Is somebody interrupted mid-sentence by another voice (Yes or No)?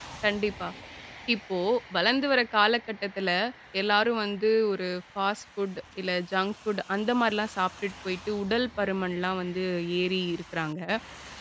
No